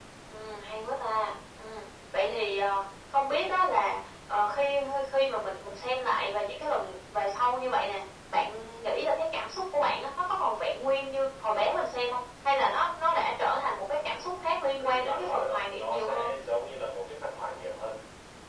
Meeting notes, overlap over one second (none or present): present